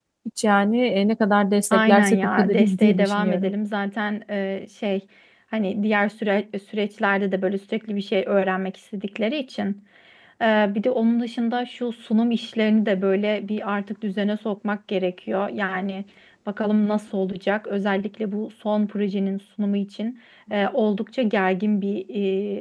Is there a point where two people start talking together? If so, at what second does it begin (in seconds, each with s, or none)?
1.7 s